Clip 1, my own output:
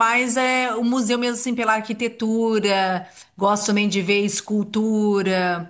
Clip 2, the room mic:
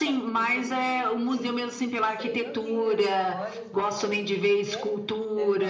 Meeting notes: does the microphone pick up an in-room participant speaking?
Yes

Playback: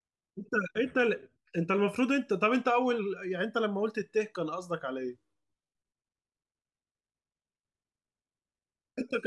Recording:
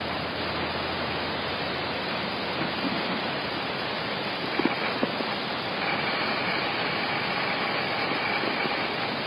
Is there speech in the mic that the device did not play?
No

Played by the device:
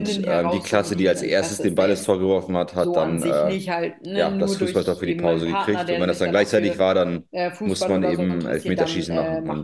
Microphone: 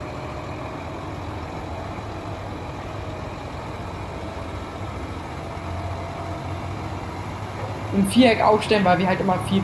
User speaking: Yes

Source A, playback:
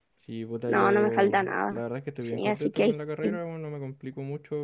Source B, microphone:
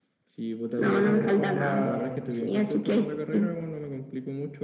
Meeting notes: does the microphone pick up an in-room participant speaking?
Yes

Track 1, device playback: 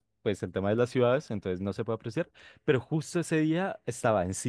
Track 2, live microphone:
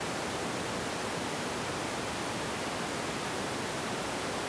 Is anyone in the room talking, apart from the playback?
No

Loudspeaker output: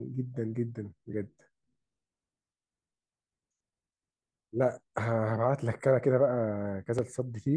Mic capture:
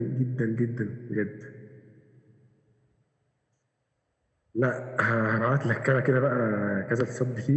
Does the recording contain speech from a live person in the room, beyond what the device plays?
No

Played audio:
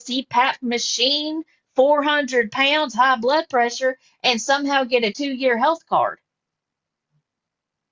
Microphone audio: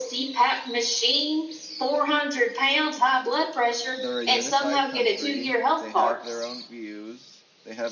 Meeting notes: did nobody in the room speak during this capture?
No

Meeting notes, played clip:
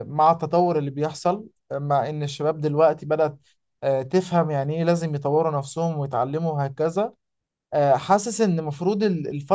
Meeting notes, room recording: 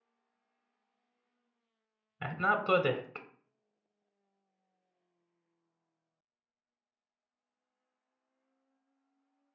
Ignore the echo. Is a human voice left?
Yes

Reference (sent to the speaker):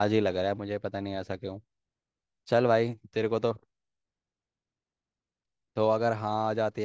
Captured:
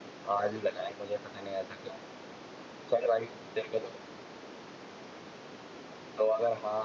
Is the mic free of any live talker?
Yes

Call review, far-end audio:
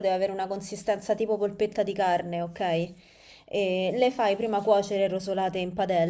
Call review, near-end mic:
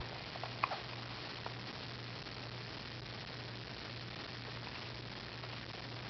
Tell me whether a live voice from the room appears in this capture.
No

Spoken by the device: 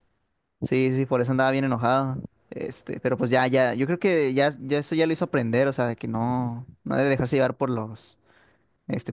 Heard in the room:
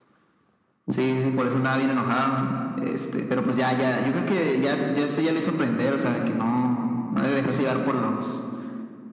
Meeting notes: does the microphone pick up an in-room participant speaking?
No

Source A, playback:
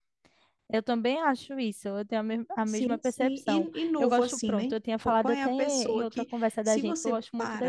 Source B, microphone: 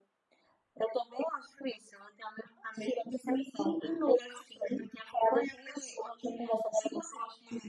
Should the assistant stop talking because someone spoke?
No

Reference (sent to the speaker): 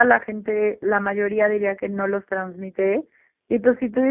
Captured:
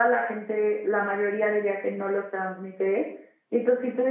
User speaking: No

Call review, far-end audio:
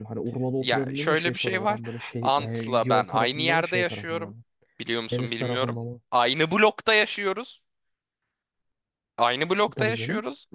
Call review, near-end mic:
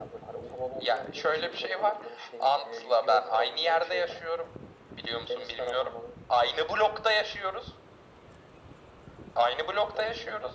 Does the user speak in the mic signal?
No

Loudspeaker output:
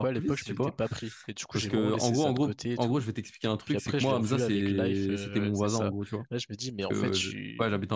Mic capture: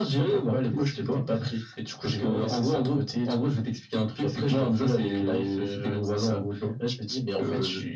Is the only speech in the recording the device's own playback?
Yes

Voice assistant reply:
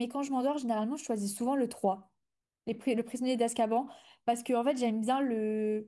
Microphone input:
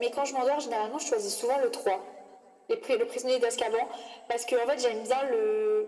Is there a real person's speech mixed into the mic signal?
No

